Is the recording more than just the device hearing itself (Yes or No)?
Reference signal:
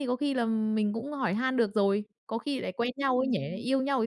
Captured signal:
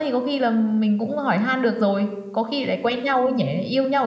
No